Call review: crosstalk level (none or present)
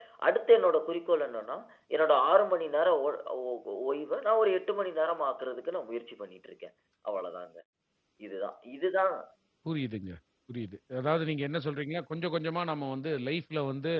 none